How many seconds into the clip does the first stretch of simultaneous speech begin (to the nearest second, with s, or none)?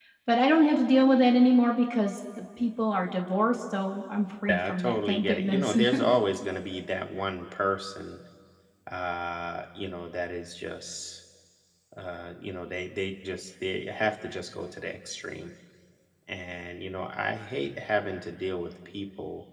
4 s